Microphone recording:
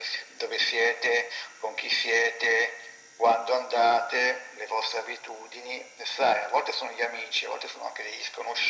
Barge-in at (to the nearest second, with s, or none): none